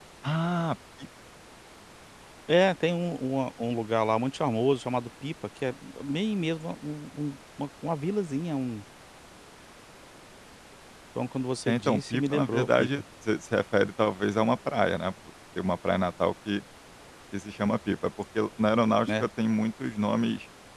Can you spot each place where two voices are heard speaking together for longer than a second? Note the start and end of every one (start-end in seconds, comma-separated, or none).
11.7-12.9